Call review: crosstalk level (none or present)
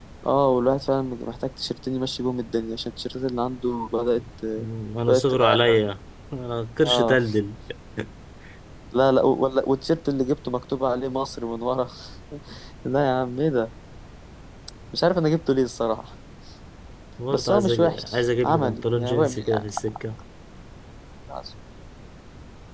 present